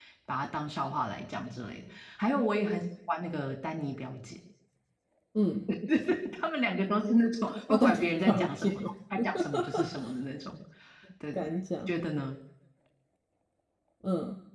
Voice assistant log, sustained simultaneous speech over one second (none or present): present